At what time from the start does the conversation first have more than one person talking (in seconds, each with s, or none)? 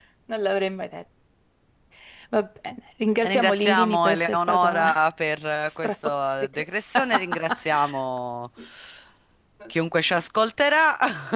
3.2 s